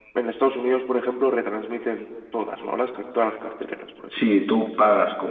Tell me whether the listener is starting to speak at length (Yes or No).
Yes